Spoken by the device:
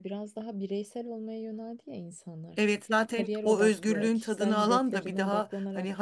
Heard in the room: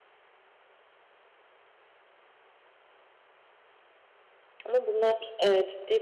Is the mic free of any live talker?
No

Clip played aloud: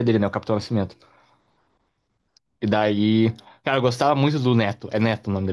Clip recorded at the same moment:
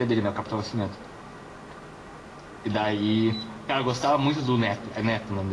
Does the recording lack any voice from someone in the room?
Yes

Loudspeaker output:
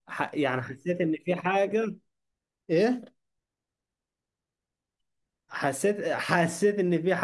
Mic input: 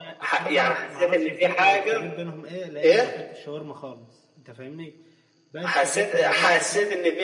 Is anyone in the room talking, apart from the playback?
Yes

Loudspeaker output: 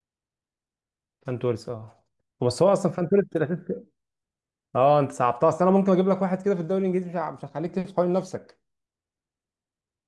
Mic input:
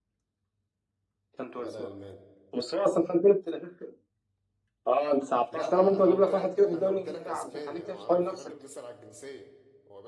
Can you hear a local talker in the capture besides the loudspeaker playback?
Yes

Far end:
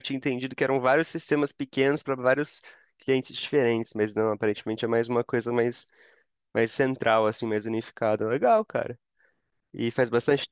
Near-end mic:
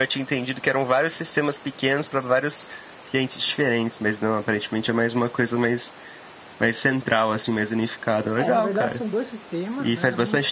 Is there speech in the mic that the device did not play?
Yes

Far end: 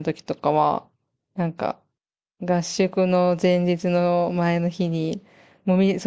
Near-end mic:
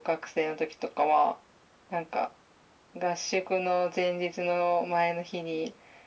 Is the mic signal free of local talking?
Yes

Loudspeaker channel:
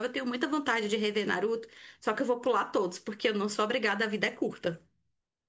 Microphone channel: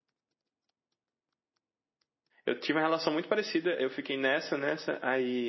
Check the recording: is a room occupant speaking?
Yes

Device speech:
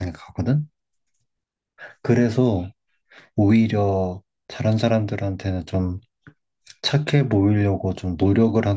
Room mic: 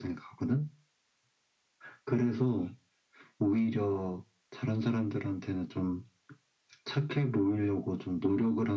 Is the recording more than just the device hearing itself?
No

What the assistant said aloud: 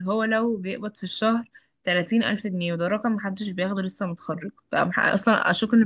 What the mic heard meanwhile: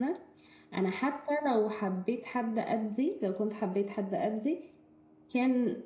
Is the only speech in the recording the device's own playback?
No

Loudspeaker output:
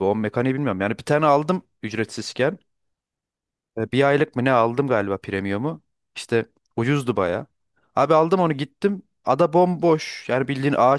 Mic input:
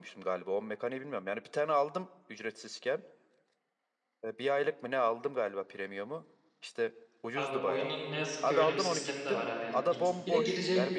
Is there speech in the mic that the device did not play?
Yes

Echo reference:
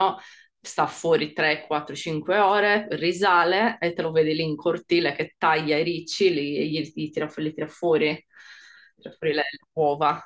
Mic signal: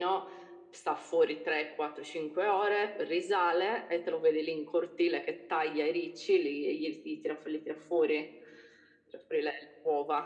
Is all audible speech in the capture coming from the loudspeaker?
Yes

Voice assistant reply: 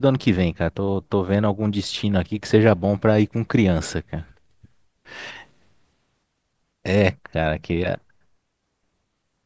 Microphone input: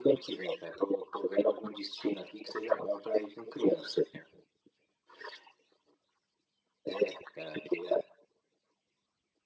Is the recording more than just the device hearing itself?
No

